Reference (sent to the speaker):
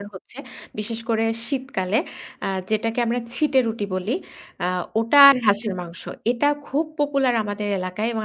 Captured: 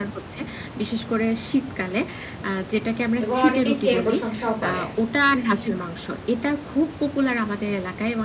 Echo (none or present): present